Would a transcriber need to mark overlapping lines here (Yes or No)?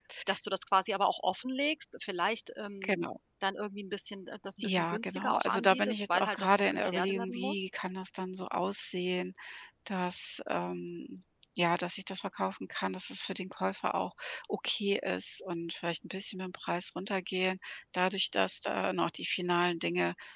Yes